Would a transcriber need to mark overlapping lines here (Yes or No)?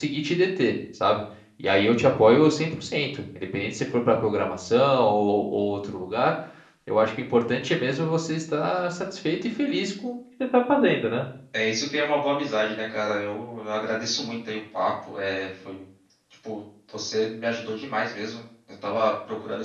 No